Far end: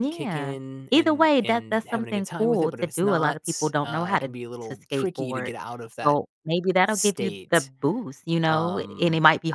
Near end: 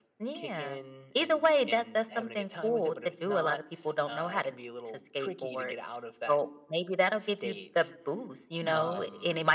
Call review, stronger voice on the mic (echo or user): echo